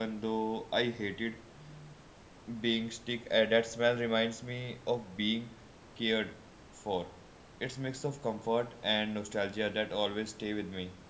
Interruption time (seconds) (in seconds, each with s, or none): none